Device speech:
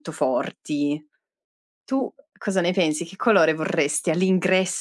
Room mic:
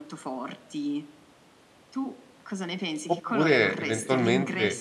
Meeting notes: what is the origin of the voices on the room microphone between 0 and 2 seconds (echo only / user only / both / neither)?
echo only